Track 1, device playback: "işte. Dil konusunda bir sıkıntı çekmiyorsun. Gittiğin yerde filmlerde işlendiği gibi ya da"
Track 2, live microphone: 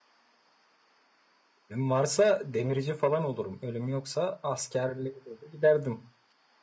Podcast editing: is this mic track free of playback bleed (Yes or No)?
Yes